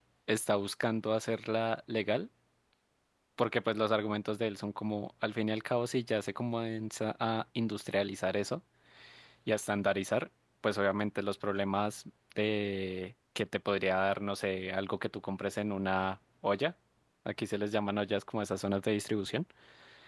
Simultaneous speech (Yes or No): No